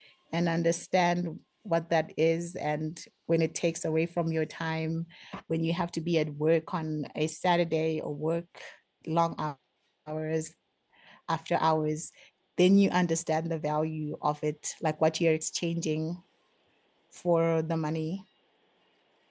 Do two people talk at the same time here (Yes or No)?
No